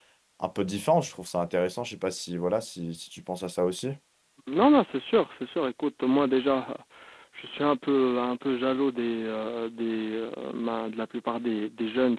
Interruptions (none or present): none